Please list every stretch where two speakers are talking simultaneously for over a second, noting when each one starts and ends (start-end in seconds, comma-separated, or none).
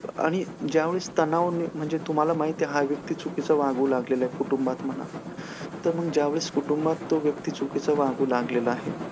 none